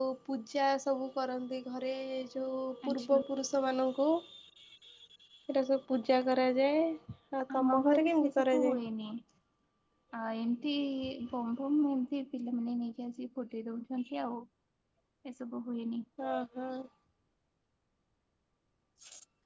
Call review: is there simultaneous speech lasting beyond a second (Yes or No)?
Yes